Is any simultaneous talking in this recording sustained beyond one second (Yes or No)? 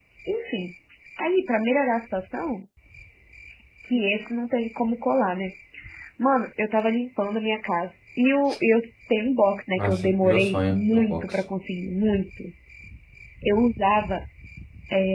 Yes